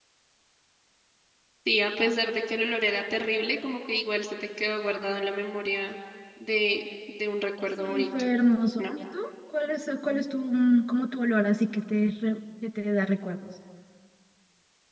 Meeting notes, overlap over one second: none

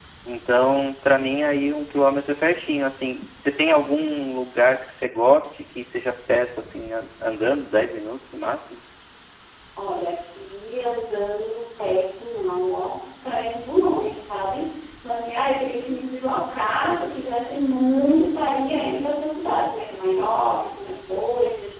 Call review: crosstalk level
none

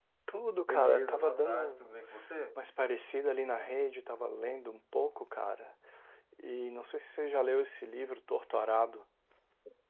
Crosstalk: present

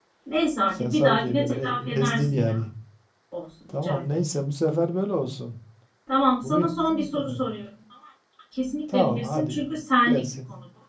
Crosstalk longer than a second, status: present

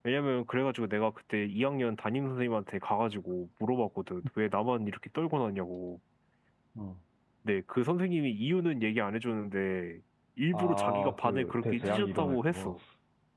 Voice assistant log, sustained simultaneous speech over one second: present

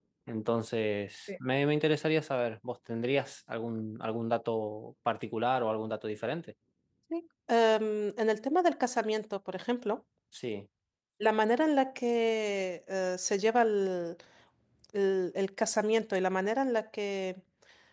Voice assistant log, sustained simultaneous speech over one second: none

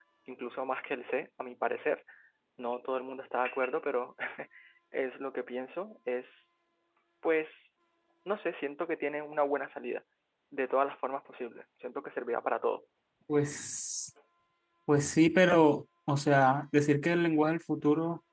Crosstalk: none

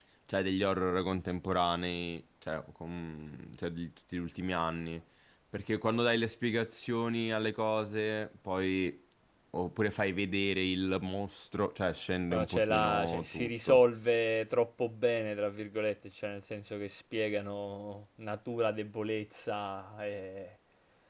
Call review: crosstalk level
present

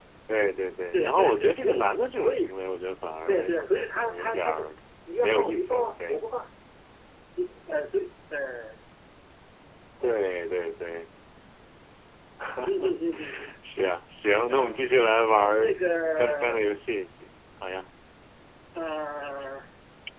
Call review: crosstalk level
present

